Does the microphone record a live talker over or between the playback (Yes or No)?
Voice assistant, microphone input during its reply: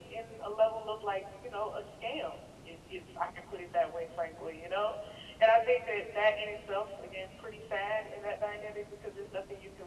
No